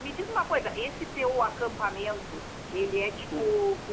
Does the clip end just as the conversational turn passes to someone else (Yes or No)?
No